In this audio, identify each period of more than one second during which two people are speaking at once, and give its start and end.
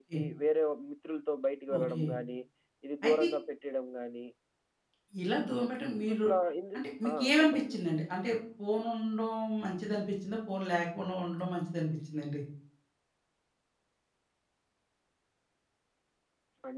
6.8-8.0

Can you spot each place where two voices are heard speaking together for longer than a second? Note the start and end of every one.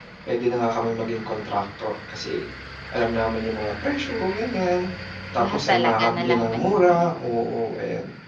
5.4-7.1

